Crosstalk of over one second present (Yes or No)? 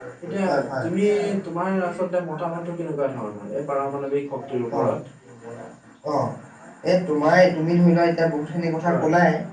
No